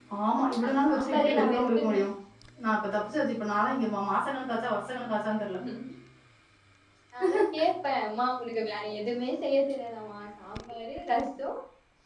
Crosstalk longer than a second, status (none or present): present